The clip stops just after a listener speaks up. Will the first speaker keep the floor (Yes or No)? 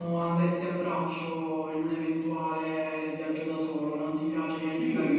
No